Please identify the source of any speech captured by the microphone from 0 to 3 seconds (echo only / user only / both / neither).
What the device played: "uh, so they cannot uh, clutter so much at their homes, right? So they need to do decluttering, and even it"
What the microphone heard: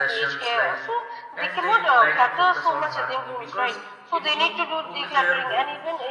both